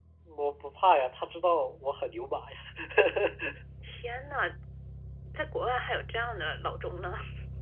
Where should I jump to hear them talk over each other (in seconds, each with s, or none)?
none